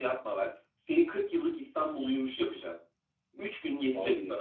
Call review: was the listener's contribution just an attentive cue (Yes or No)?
Yes